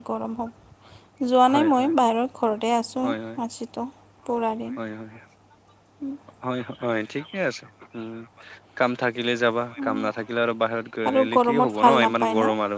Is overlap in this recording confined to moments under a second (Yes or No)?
No